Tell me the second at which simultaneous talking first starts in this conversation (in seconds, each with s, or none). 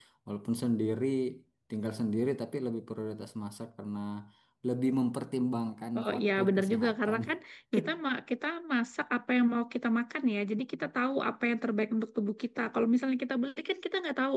6.0 s